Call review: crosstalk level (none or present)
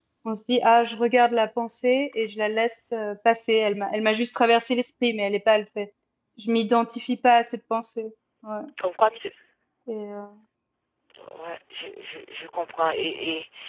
none